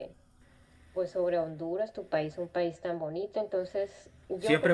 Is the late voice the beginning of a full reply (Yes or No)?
Yes